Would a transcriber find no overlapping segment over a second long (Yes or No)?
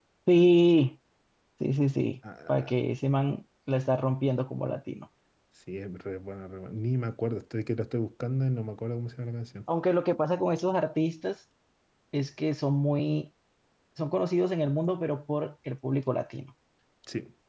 Yes